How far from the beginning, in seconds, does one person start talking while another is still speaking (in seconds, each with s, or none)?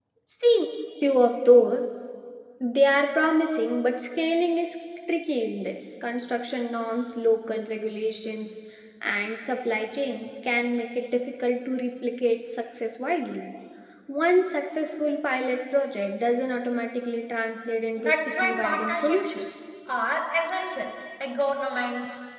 18.0 s